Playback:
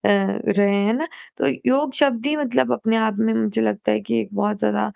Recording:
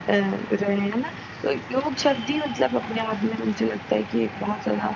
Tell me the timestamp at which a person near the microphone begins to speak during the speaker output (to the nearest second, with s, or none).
none